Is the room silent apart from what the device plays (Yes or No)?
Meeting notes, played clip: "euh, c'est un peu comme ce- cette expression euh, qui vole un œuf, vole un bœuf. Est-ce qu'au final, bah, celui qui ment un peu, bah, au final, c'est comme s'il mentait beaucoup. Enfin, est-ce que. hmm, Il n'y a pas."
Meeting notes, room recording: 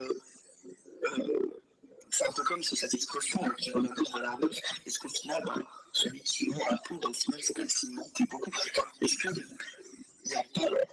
Yes